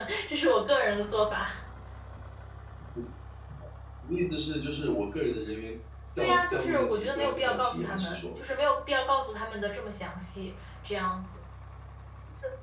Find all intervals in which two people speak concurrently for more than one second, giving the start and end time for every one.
6.2-8.4

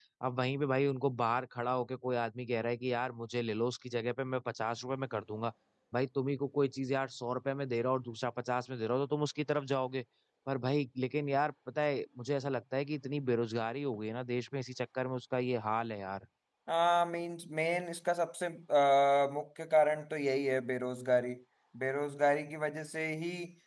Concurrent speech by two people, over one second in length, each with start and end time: none

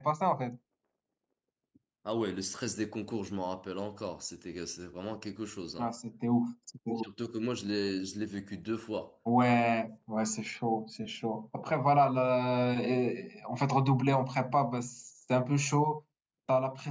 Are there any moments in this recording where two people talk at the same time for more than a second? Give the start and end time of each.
none

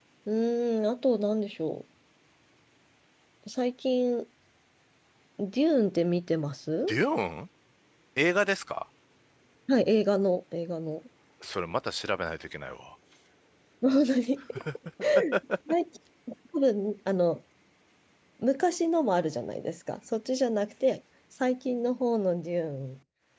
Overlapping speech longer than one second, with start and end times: none

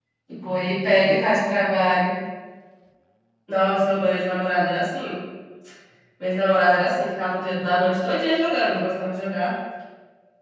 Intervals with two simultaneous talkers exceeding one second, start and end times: none

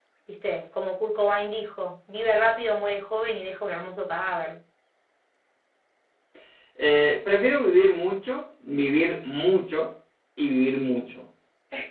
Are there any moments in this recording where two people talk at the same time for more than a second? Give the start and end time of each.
none

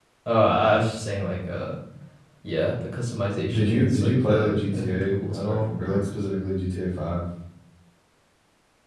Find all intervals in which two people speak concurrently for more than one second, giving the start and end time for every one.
3.5-6.0

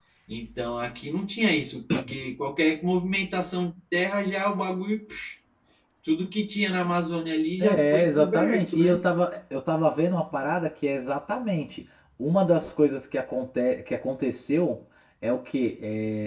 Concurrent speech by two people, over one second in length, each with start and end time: 7.6-9.0

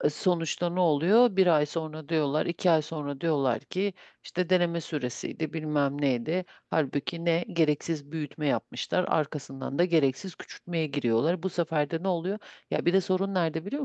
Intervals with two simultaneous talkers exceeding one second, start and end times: none

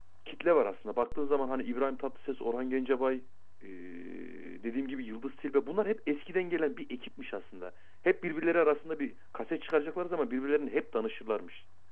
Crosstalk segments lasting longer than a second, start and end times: none

